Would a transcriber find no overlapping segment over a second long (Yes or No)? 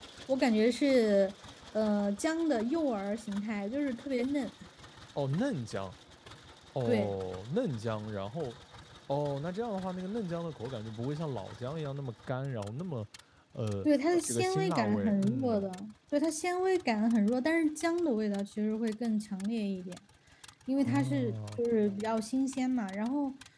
No